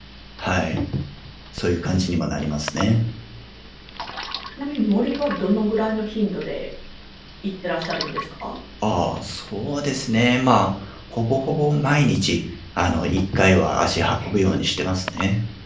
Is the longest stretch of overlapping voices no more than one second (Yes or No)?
Yes